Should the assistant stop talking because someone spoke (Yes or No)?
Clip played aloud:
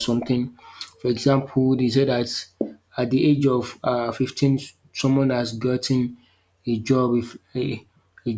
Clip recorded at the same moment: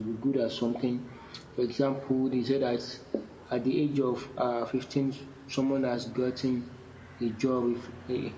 No